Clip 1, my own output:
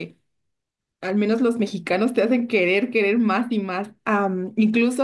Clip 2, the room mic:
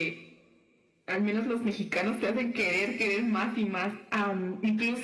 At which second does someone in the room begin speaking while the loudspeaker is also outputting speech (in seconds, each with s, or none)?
none